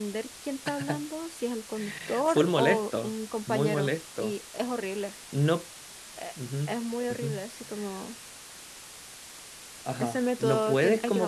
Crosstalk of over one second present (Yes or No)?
Yes